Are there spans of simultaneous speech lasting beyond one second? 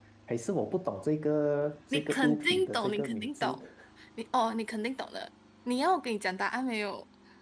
Yes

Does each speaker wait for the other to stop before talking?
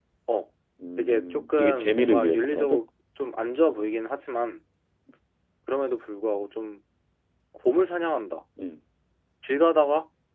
No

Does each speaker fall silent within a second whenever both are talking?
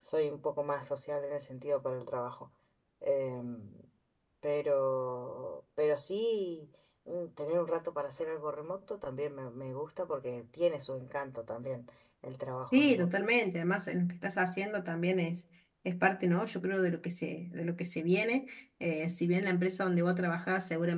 Yes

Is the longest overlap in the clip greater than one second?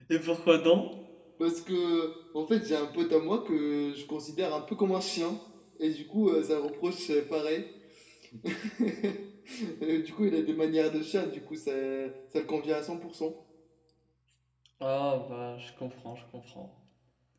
No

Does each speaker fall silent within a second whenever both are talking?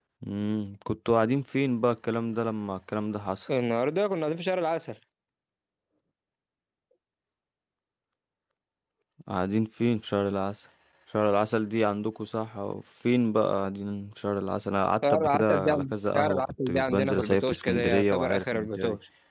No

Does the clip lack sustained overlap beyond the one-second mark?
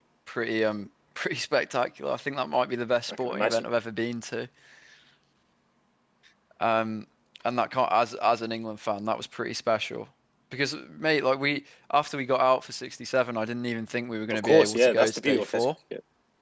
No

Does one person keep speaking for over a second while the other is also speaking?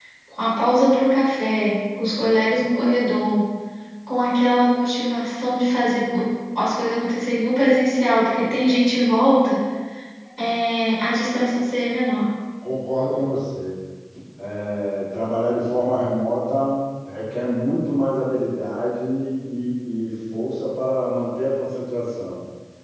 No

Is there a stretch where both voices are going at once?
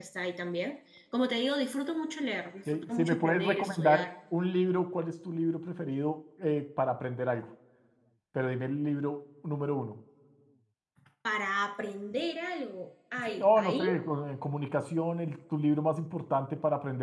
Yes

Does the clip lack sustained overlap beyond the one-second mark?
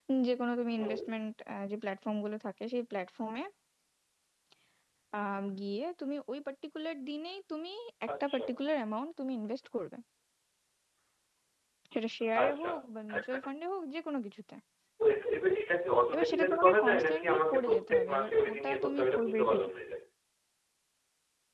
No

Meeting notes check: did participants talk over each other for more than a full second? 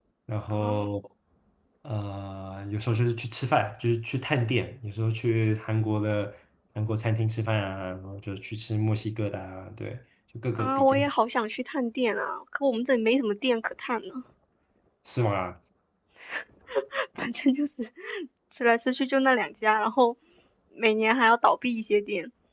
No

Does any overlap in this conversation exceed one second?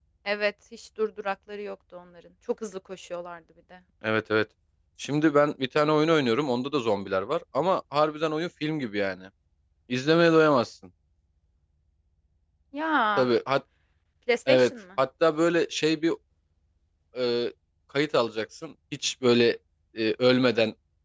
No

